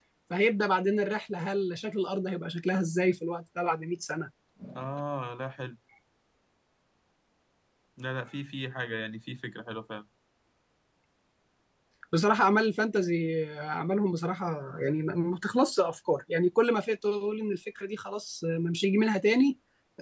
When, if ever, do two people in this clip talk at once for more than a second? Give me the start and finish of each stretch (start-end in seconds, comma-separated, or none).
none